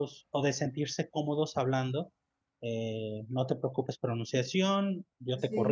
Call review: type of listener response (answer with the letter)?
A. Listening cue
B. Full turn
A